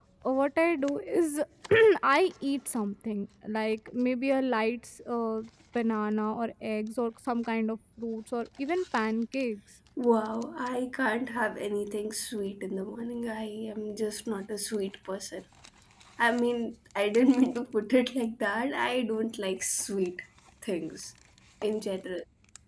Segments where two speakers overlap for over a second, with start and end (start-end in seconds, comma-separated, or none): none